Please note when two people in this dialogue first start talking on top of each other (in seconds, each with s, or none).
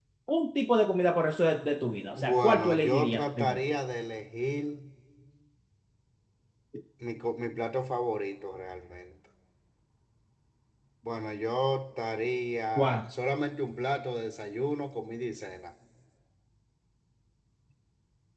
2.1 s